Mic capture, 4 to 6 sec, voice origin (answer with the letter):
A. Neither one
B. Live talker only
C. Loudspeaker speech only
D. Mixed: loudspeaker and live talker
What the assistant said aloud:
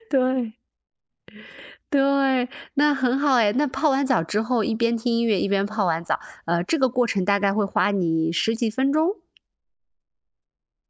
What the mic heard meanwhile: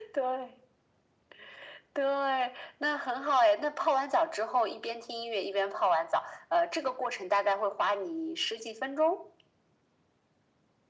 C